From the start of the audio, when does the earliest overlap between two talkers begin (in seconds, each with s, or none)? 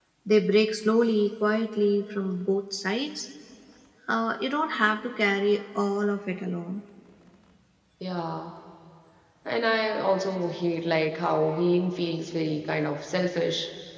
none